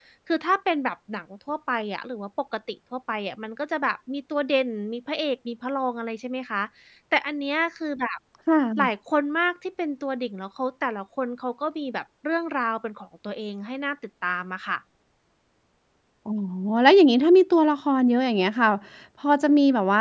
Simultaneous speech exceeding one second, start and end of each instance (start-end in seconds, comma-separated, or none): none